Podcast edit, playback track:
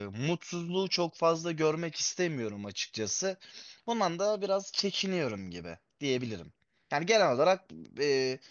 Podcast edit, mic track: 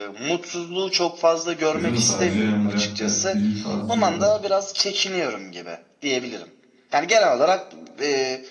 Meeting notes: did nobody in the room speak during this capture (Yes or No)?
No